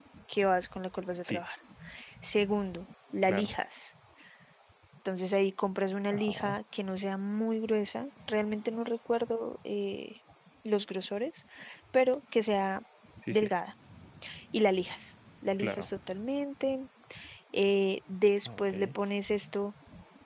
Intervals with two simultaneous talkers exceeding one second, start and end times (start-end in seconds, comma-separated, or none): none